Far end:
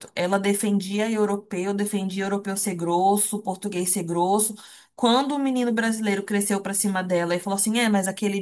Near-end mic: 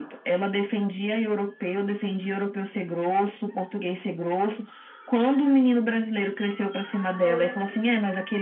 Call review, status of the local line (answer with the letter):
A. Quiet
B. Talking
B